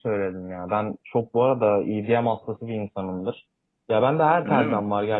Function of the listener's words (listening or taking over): listening